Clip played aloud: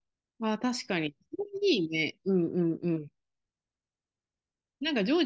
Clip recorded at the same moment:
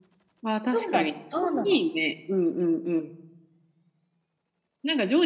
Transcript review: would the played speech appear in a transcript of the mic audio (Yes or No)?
Yes